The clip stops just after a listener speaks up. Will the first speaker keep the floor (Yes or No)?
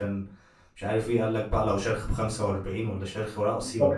No